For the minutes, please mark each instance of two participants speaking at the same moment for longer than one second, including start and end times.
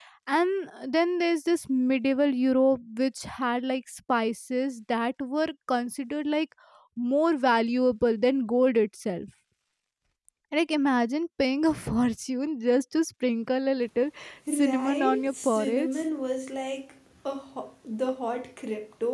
14.5-16.0

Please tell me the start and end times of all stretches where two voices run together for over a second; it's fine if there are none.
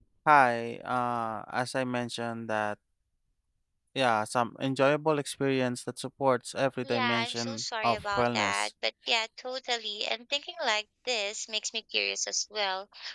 6.8-8.7

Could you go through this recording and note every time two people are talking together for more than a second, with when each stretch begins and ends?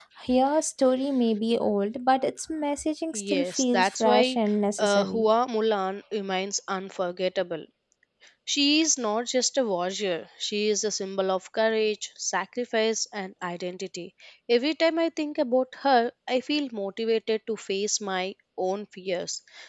3.1-4.4

